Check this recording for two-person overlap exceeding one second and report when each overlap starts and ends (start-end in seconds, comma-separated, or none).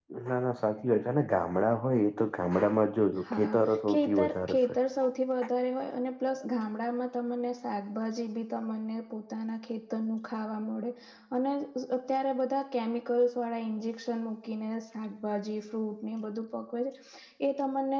3.2-4.6